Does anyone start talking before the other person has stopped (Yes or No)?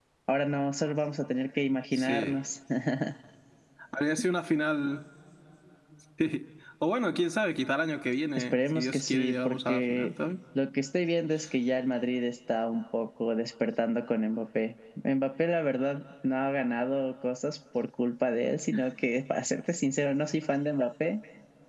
Yes